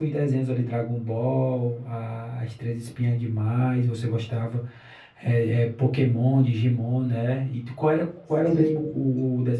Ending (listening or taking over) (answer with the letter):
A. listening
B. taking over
A